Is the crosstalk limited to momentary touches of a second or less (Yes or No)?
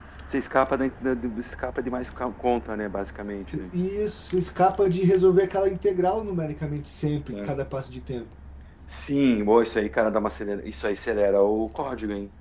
Yes